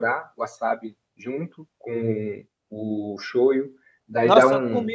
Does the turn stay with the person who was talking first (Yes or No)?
No